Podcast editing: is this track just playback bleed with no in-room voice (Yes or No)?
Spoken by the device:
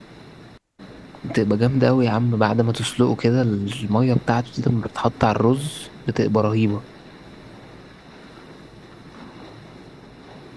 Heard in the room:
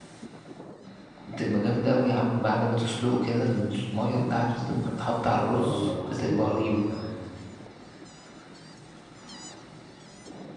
No